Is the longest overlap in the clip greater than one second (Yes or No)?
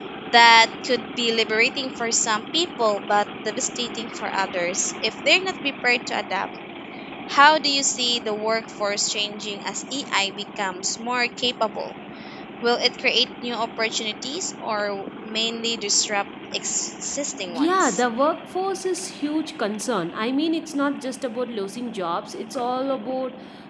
No